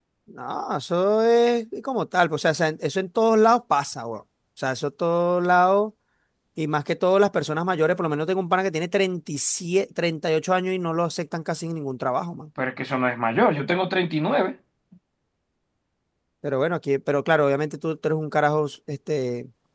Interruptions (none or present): none